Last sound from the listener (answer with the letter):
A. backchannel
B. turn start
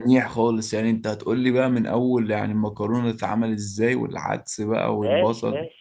B